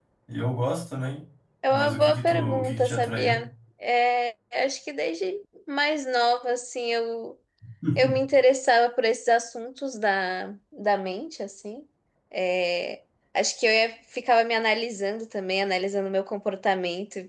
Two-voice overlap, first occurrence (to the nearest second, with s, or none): 2 s